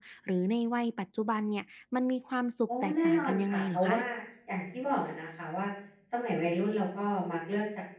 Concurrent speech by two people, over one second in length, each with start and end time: 2.7-4.0

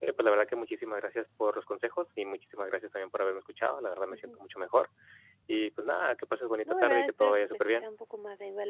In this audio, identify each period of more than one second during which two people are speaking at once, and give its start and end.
6.6-7.9

